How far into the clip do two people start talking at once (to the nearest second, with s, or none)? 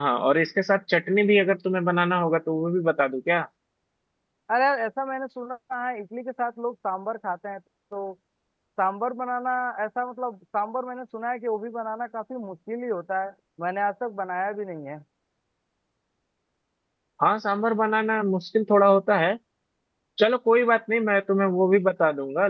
none